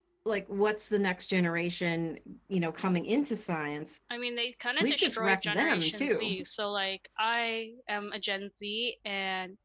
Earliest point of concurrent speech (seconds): 4.8 s

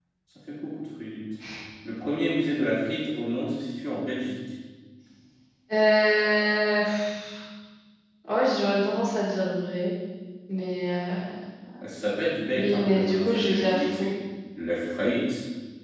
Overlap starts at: 12.6 s

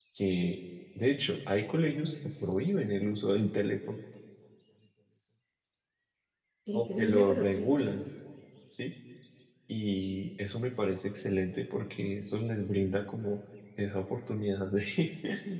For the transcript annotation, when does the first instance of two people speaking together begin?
6.7 s

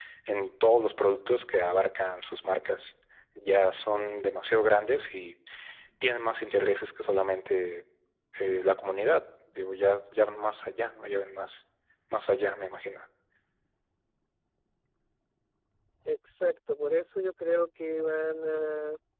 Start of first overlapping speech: none

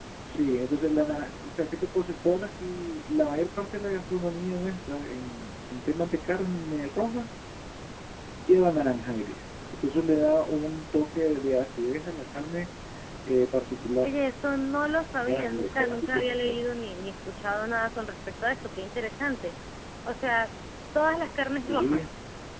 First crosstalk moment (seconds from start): 15.2 s

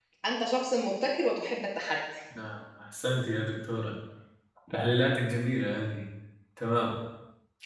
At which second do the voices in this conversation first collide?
none

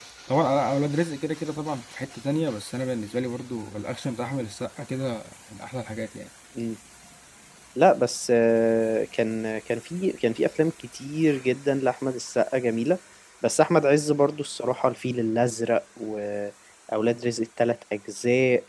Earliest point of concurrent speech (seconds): none

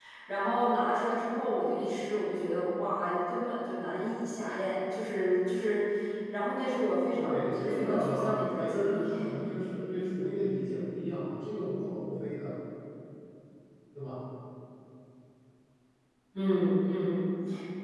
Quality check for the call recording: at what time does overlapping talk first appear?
7.2 s

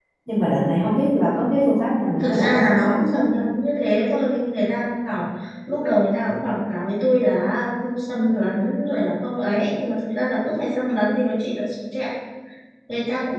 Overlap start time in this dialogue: 2.2 s

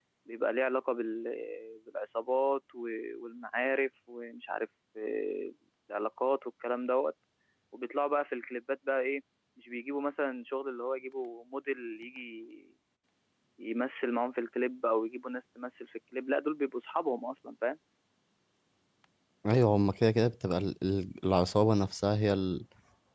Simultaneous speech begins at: none

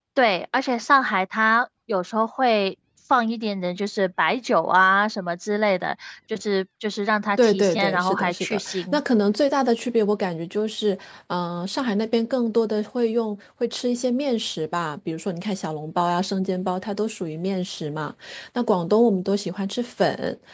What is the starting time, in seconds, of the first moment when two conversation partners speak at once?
7.4 s

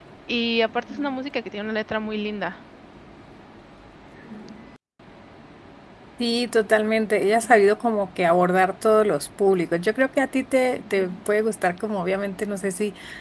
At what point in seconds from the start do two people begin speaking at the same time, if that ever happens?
none

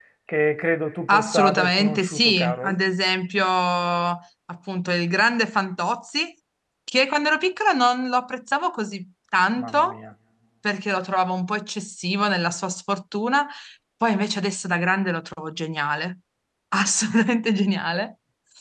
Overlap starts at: 1.1 s

